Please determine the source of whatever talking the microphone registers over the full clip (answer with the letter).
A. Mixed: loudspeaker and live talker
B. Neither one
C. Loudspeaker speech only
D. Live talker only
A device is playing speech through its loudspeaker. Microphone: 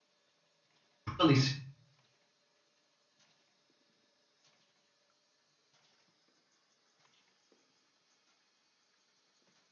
D